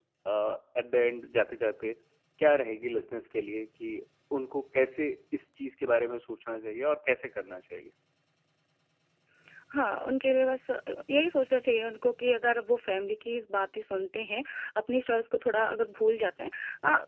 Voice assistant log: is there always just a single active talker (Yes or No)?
Yes